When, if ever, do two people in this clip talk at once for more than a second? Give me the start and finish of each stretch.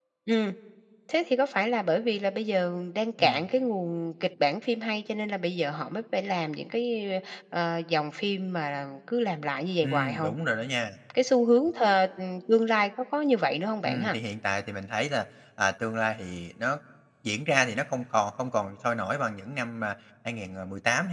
none

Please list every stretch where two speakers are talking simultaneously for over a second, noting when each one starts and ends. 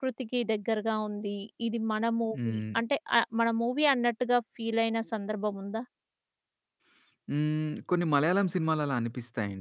none

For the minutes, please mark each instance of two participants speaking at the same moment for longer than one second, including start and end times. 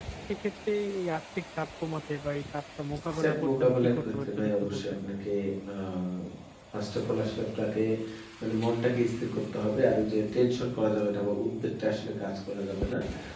3.2-5.0

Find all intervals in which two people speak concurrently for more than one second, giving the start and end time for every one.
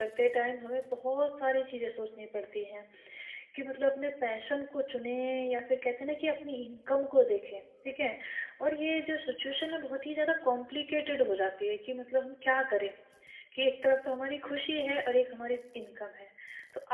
none

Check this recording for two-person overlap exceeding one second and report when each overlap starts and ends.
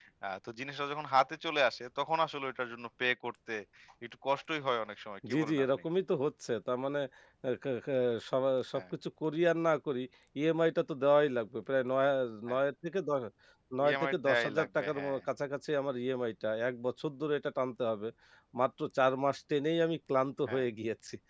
13.9-15.2

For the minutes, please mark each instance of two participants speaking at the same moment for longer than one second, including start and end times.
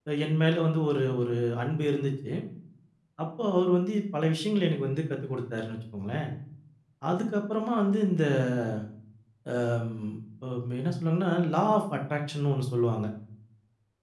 none

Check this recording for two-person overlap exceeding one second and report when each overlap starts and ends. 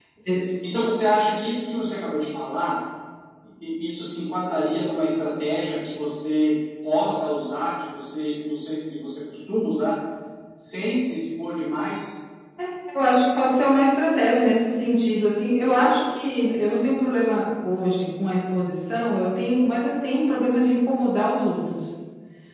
none

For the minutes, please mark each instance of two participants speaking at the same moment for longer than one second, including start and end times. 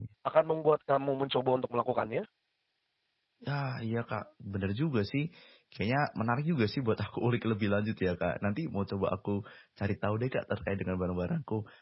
none

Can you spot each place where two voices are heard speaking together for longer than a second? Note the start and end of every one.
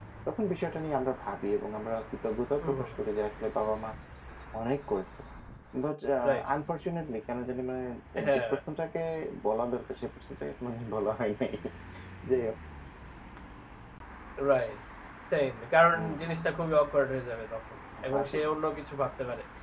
none

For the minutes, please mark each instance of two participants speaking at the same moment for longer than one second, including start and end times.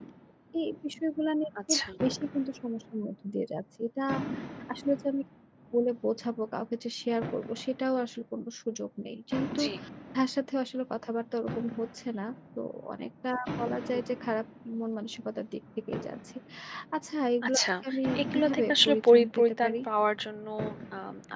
18.3-19.8

